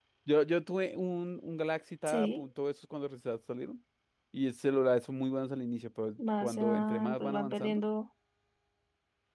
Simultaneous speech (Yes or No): Yes